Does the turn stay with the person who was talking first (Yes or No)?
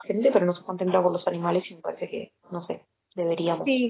No